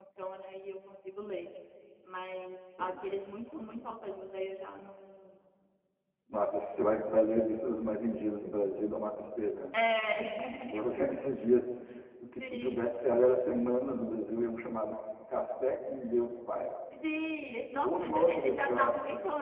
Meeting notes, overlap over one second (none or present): present